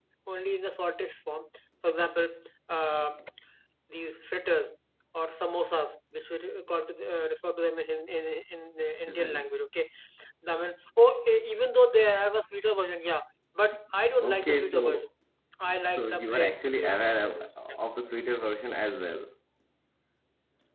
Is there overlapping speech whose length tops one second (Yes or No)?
Yes